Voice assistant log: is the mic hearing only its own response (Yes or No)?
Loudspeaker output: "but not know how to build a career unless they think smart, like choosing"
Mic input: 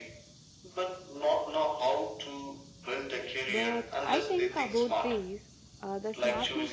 No